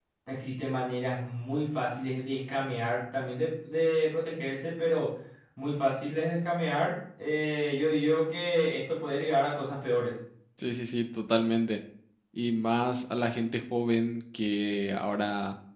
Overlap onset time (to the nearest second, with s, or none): none